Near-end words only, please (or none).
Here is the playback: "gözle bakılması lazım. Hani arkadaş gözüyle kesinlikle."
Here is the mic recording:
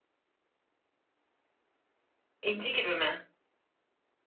İnci gibi mi?